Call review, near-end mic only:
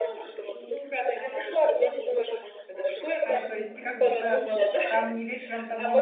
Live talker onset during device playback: 3 s

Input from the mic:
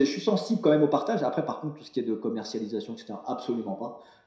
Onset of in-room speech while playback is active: none

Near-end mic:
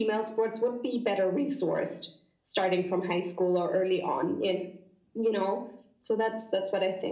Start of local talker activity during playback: none

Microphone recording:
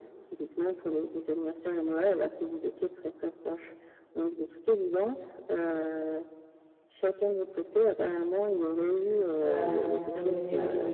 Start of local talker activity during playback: 9 s

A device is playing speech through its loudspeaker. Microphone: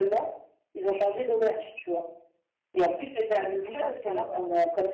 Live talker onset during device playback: 4 s

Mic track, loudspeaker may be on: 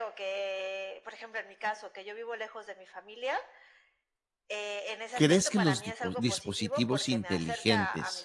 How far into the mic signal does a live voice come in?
5 s

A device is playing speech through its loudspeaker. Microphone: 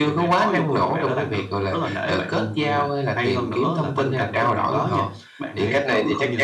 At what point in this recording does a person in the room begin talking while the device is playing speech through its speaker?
none

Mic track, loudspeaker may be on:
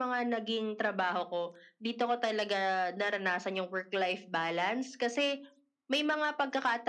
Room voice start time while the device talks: none

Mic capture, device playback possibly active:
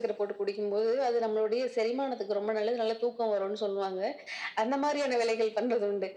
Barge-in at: none

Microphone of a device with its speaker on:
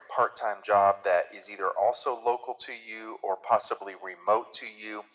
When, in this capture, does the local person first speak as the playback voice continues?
none

